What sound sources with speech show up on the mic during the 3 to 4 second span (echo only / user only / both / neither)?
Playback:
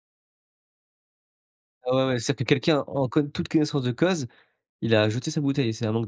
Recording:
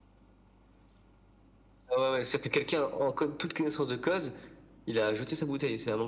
echo only